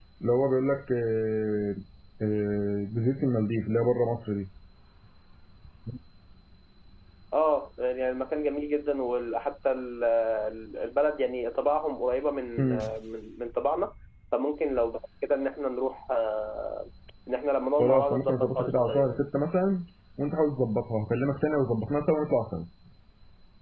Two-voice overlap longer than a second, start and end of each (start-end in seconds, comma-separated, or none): 17.8-19.2